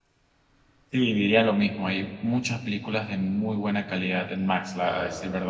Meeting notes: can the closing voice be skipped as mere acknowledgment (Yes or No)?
Yes